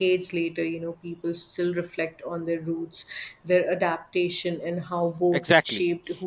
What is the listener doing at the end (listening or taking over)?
taking over